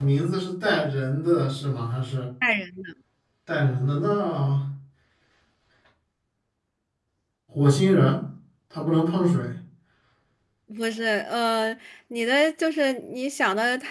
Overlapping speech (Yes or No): No